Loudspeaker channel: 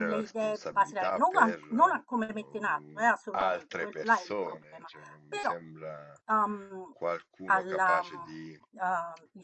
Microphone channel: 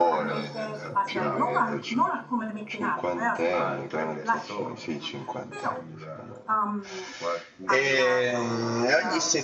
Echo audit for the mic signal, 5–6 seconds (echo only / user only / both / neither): both